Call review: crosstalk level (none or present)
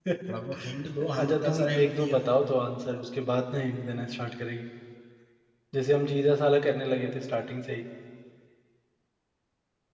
present